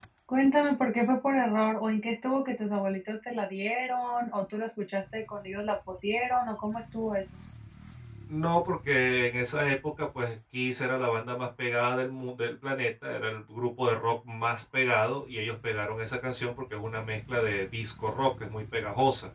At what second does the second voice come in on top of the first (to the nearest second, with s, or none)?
none